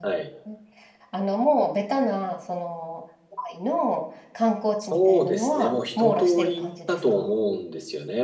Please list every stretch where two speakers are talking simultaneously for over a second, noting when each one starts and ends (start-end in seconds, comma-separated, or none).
4.8-7.3